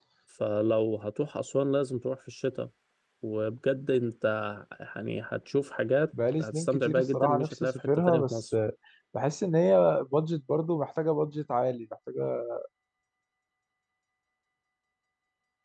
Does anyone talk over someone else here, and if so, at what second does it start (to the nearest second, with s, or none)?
6 s